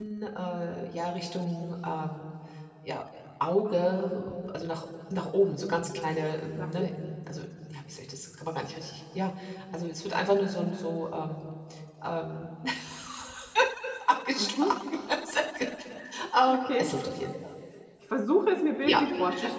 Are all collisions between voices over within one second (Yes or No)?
Yes